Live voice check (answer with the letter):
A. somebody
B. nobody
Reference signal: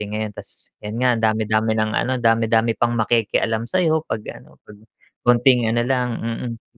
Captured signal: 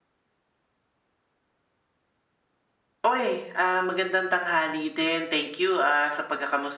A